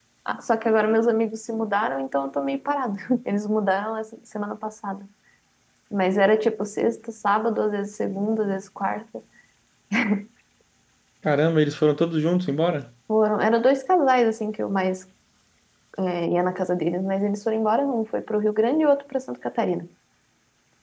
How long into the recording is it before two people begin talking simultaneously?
none

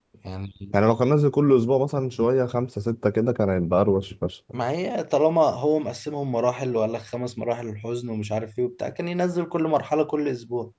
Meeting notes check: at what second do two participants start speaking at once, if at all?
none

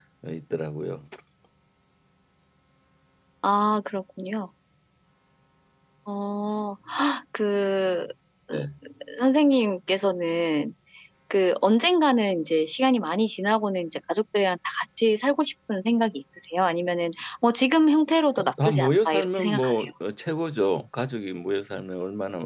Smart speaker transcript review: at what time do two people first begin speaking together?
18.4 s

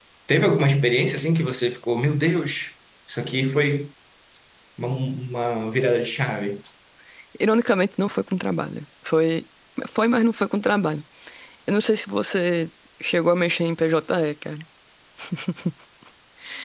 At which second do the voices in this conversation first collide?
none

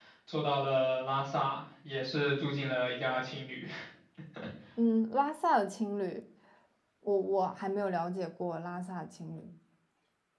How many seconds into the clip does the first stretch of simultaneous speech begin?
none

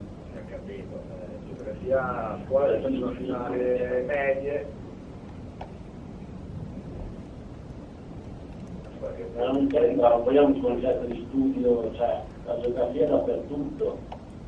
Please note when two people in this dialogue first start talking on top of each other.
2.6 s

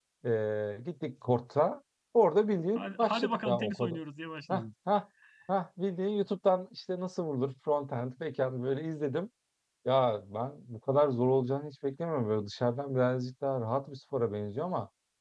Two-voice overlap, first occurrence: 2.8 s

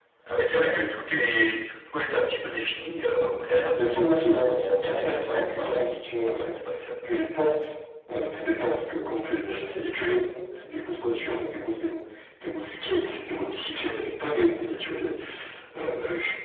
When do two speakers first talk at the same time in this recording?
3.8 s

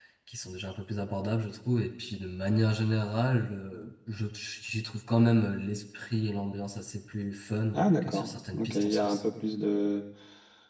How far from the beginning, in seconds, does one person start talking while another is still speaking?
7.7 s

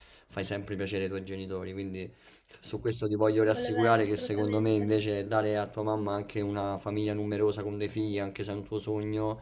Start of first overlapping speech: 3.5 s

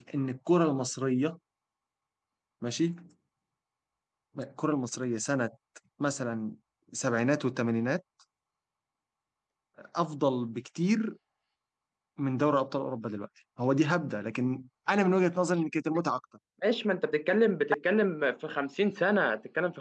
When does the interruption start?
none

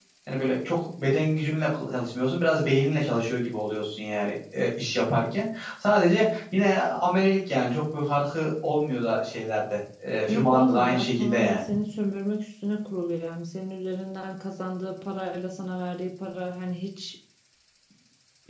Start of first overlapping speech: 10.3 s

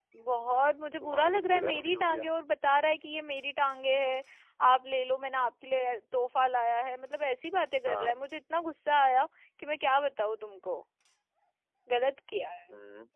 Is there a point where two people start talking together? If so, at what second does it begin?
1.0 s

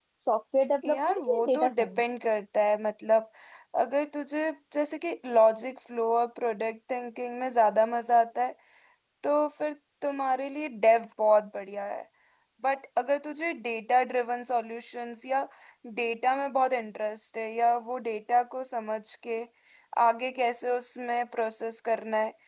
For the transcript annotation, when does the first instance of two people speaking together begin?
0.8 s

